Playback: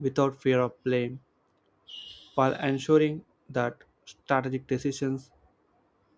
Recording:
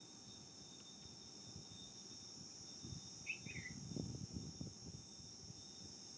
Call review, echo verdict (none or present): none